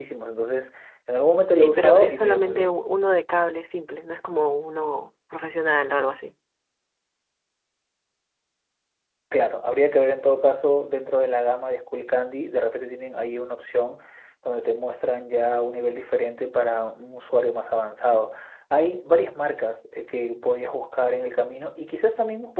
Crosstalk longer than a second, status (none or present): present